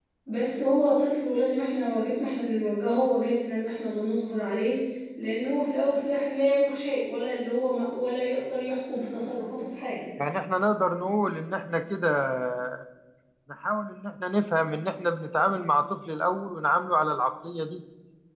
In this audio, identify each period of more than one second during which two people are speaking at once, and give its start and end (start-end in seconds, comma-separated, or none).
none